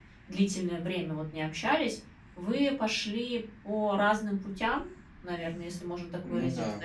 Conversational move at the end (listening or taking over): listening